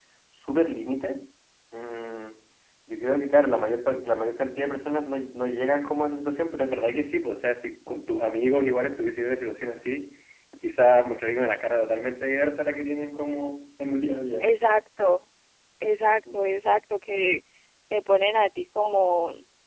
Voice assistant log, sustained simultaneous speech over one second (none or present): none